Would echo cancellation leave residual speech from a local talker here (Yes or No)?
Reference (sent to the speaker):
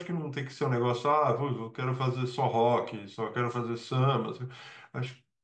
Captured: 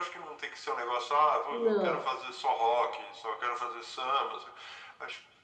Yes